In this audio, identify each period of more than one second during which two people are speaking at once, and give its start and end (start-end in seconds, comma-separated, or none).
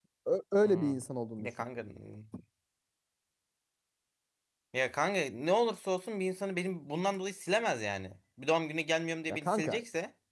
none